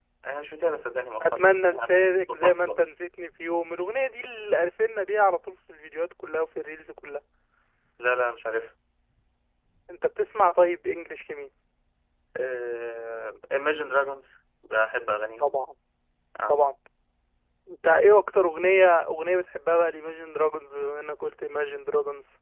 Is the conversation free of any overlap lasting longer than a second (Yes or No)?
No